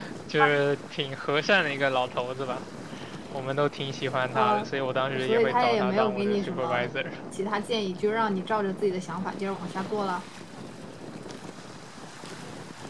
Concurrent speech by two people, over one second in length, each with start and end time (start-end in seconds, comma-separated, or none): 5.2-6.9